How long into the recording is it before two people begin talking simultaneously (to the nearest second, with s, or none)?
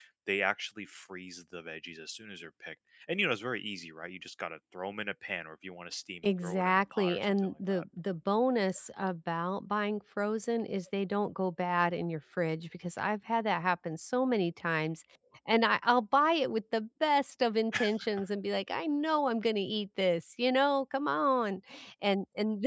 6 s